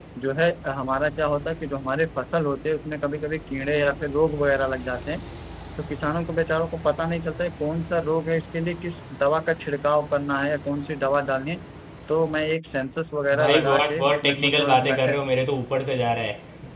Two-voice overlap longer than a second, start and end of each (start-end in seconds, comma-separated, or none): 13.4-15.2